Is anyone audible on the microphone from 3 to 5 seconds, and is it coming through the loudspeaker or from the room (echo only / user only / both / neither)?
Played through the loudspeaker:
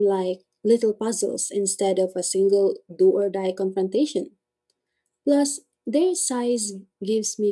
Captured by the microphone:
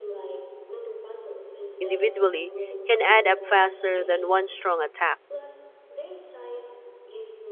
both